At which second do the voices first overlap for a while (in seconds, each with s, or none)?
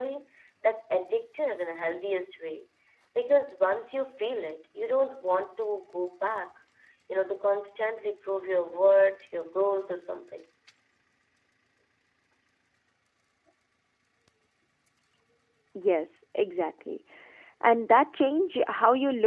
none